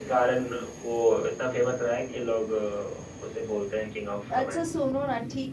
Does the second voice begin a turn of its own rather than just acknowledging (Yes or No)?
Yes